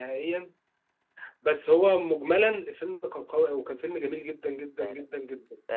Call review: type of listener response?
taking over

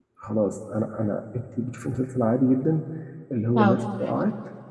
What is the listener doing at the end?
listening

